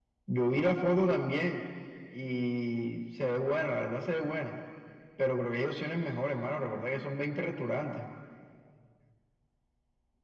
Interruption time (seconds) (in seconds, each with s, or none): none